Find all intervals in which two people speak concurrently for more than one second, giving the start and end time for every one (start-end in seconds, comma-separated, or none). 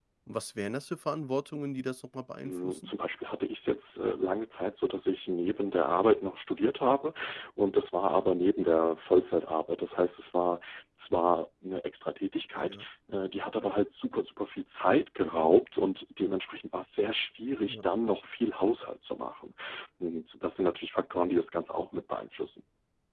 none